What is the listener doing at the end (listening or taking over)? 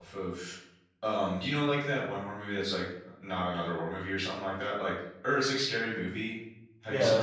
taking over